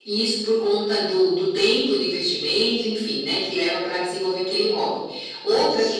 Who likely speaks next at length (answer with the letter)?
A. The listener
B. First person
B